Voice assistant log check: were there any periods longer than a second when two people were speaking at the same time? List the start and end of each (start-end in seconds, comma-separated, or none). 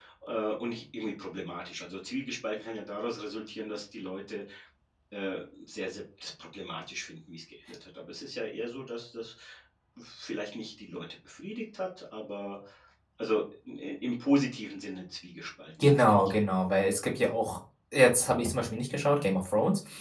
none